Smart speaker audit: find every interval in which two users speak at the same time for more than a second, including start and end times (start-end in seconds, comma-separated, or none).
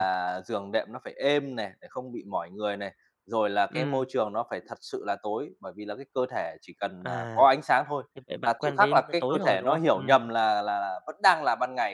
8.4-10.3